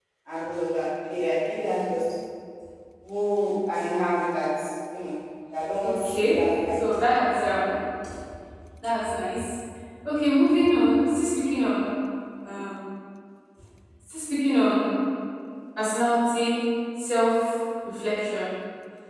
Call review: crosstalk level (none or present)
present